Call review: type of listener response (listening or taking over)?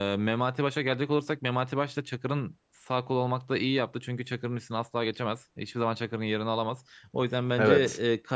listening